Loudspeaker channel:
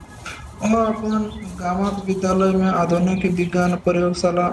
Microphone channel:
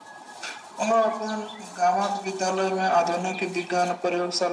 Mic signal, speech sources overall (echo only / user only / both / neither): echo only